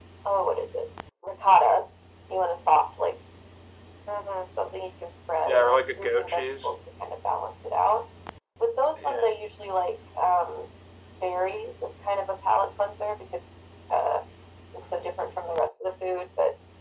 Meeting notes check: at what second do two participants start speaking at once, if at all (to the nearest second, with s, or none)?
5 s